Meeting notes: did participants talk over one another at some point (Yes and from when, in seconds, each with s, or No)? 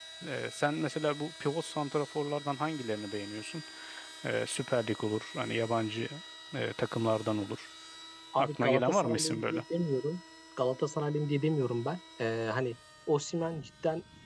Yes, from 8.4 s